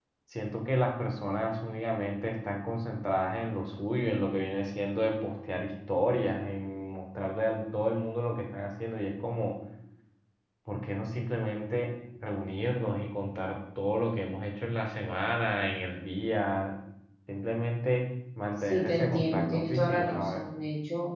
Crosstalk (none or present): present